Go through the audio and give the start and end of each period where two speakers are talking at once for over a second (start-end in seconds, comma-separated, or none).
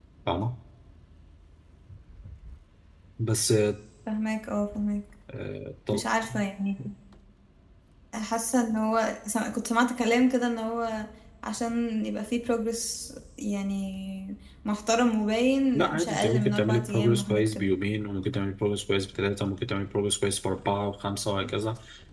15.8-17.7